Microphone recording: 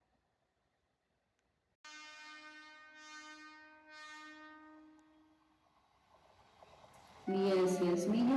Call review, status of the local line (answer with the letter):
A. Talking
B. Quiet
A